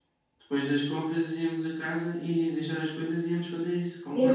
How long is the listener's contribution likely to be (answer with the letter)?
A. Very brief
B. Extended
B